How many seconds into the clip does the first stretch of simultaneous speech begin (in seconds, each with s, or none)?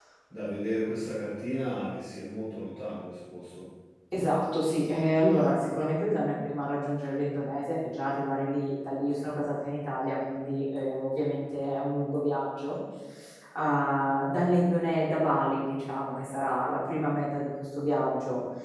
none